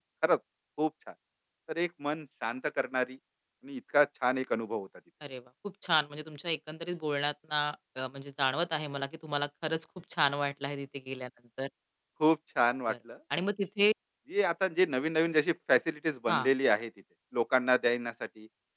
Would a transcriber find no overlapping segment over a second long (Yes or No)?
Yes